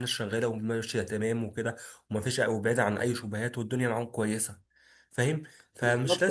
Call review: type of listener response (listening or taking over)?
taking over